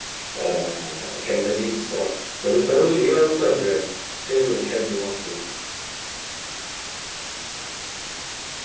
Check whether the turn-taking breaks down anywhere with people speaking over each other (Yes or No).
No